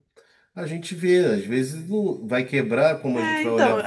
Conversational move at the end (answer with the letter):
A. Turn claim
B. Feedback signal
A